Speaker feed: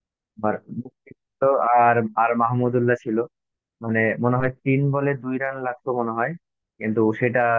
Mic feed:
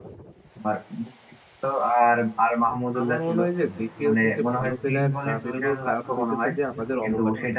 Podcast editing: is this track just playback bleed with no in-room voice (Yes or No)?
No